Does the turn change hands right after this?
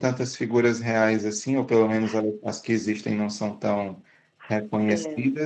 No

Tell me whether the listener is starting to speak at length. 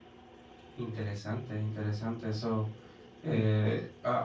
No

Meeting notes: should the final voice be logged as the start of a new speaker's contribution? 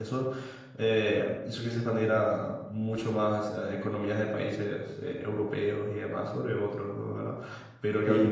No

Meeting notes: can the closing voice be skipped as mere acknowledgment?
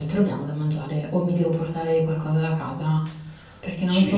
No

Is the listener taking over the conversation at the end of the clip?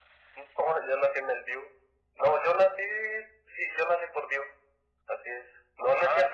No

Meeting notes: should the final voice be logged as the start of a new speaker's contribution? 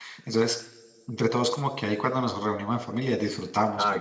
Yes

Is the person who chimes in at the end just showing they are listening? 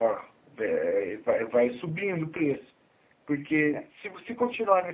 Yes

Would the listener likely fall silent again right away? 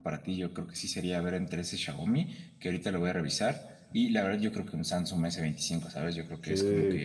No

